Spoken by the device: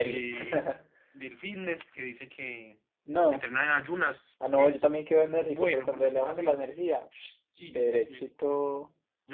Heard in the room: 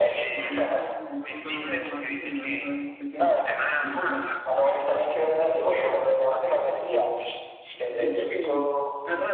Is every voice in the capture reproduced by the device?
No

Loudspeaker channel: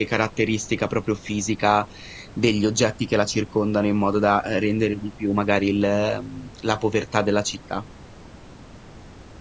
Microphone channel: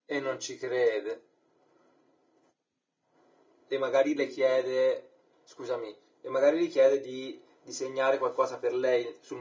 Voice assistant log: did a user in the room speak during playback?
Yes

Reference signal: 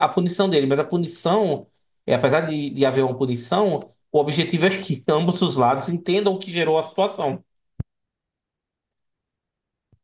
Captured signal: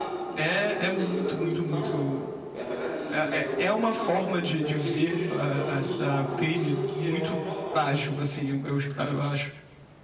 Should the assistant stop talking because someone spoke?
Yes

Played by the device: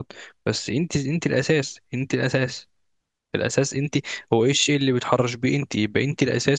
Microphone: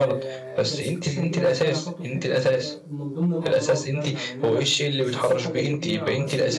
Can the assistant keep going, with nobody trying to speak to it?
No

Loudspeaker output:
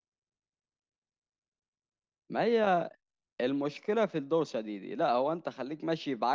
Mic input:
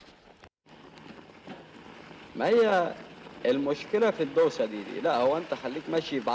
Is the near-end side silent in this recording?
Yes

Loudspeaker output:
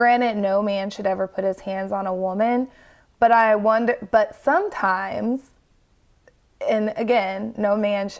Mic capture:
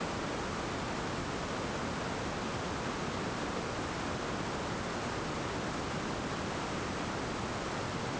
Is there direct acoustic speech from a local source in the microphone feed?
No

